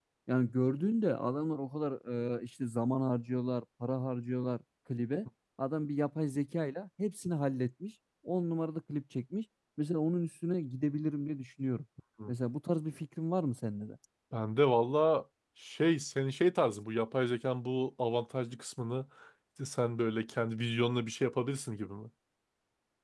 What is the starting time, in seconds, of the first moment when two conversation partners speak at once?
none

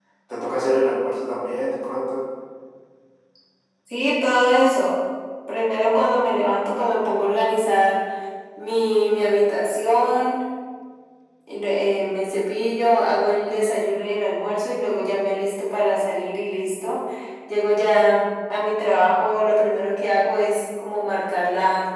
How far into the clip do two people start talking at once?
none

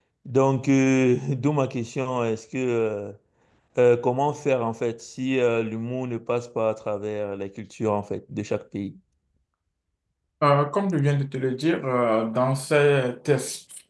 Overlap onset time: none

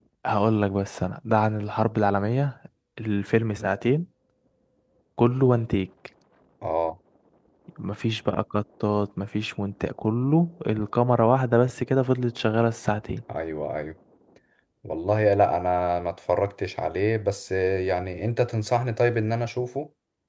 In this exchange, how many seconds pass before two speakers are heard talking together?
none

